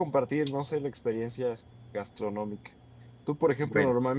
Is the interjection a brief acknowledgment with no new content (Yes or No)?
Yes